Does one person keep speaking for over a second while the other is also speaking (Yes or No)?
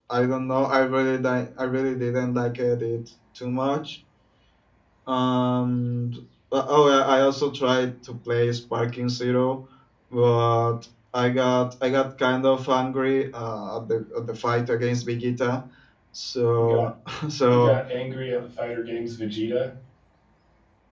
No